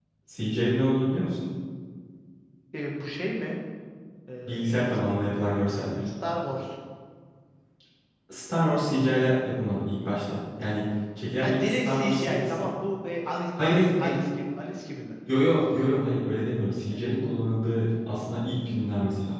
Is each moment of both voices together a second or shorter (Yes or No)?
No